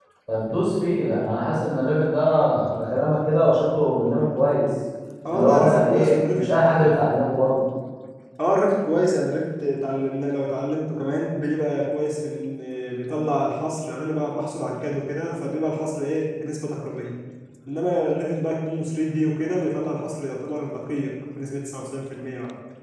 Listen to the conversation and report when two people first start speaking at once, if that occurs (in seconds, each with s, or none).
5.3 s